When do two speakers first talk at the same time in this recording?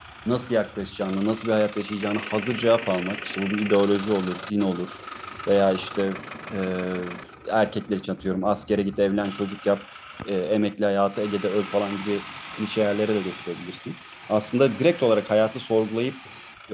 none

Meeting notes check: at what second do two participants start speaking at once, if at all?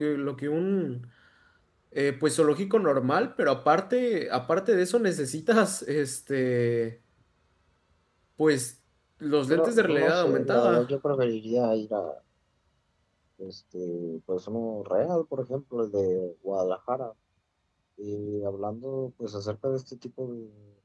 9.5 s

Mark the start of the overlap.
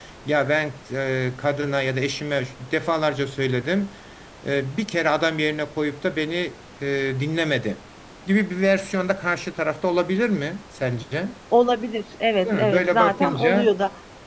12.4 s

